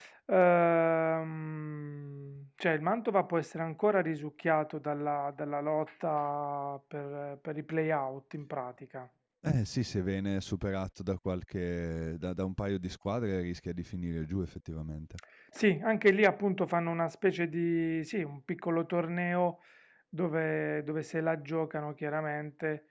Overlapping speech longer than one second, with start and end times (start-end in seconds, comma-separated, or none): none